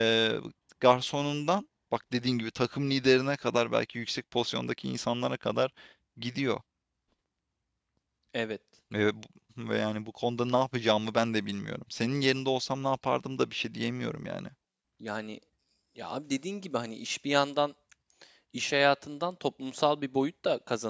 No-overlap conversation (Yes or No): Yes